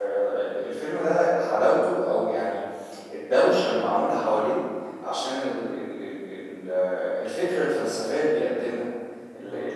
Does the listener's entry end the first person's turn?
No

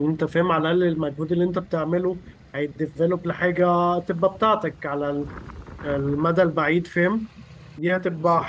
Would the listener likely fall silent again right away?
Yes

